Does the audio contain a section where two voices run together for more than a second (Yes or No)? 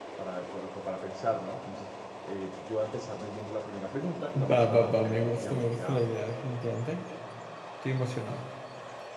Yes